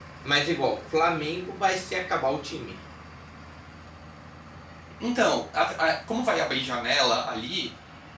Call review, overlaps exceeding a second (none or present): none